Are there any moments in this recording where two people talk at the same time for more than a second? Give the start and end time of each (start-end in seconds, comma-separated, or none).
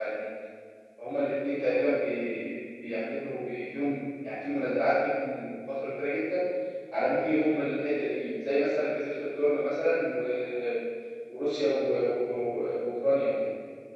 none